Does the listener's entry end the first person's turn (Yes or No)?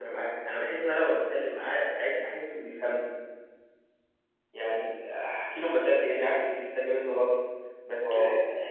No